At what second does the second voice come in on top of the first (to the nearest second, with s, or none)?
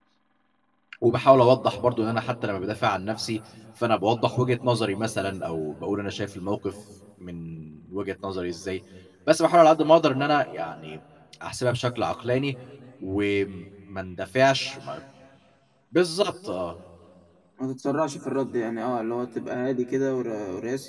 none